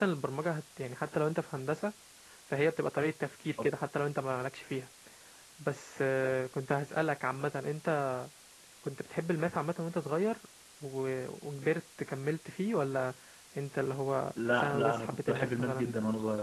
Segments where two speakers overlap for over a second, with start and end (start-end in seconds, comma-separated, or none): 14.5-15.9